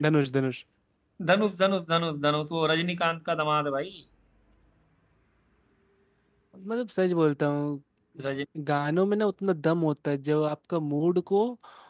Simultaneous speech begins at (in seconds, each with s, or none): none